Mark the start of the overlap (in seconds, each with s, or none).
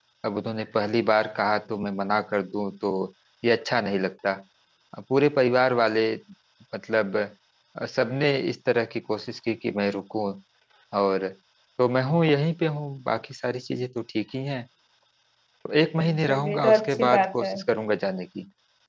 16.0 s